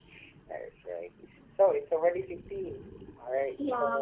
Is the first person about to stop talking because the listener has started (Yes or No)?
Yes